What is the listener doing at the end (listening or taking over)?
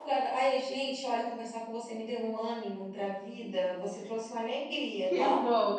taking over